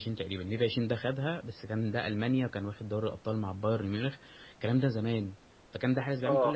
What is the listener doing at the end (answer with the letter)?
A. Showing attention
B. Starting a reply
A